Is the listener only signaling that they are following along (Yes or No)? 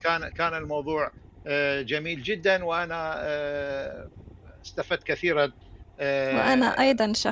No